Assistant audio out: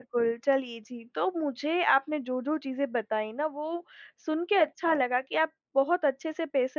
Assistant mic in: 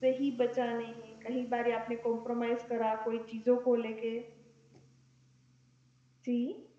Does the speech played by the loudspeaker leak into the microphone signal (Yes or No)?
No